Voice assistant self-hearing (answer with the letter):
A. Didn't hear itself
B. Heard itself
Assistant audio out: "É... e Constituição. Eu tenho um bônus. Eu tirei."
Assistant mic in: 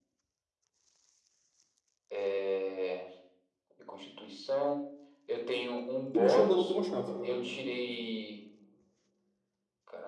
B